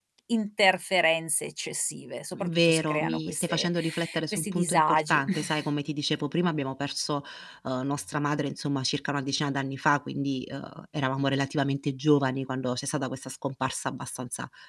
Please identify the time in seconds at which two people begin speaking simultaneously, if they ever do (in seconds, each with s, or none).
2.3 s